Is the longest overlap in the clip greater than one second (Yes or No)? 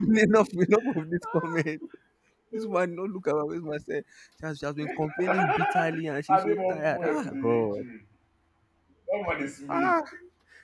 Yes